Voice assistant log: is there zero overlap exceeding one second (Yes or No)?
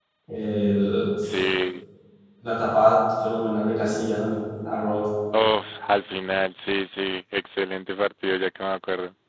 Yes